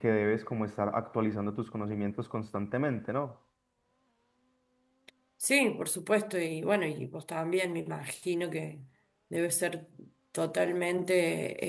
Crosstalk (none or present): none